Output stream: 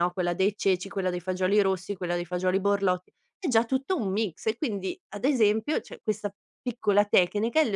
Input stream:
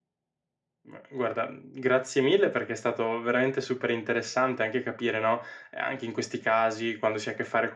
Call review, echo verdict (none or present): none